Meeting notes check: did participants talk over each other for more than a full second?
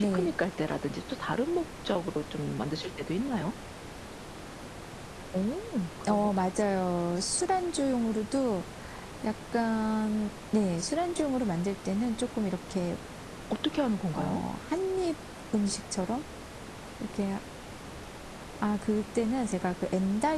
No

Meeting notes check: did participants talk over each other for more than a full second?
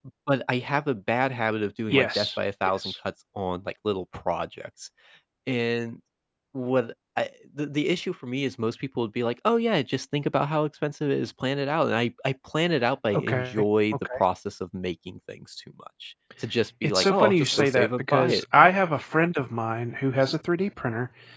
Yes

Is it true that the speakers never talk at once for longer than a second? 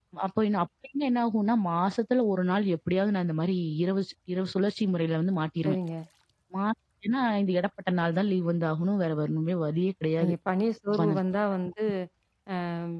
Yes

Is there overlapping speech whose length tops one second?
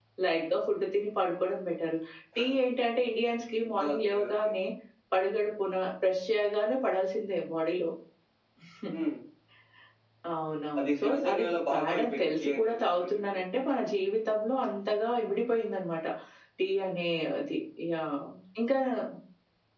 Yes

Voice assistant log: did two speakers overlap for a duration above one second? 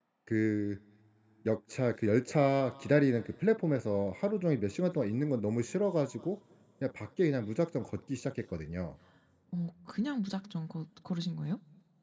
No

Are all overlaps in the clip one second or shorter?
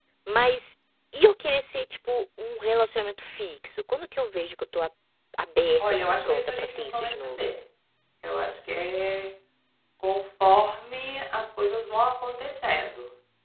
No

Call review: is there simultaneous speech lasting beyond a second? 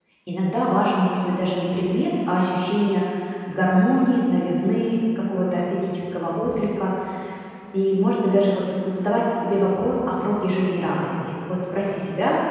No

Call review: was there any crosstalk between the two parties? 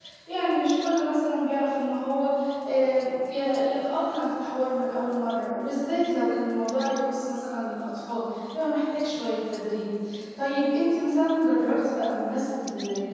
No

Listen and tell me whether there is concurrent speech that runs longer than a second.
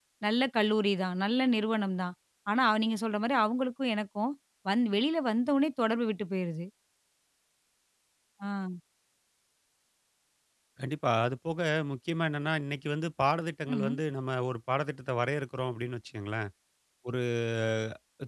No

